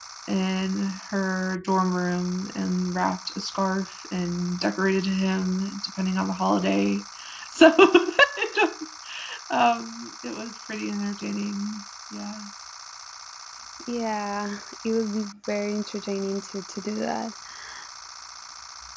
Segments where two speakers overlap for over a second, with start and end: none

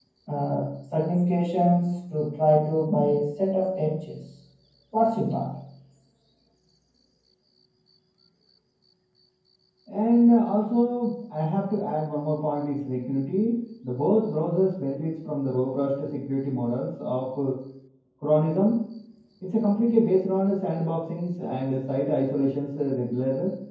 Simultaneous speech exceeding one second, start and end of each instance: none

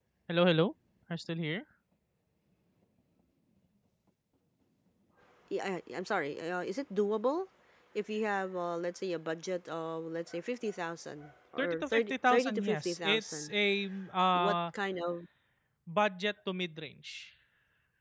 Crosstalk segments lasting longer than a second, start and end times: 11.6-13.5

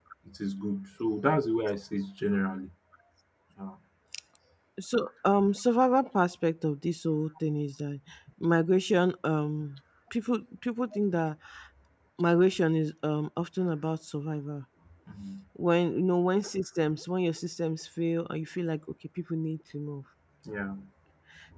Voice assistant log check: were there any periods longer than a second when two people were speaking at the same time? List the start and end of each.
none

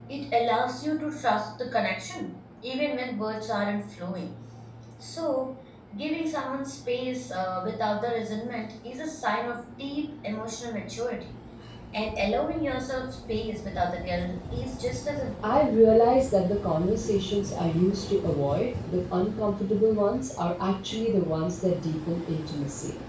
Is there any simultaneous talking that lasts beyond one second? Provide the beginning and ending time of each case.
none

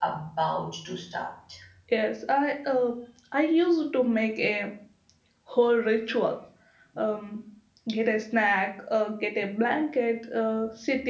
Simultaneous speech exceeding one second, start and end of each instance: none

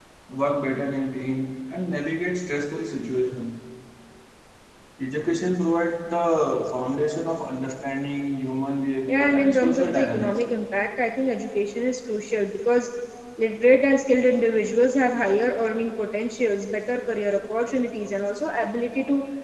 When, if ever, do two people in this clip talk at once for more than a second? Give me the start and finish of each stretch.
9.1-10.4

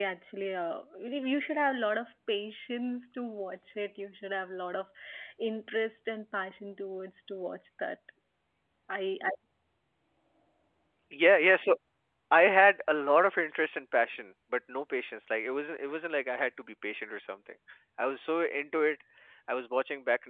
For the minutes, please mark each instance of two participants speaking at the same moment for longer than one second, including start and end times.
none

